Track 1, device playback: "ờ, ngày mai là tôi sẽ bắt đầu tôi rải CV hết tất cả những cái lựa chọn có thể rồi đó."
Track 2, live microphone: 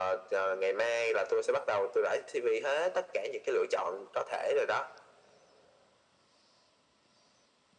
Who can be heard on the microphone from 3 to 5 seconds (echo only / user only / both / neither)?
echo only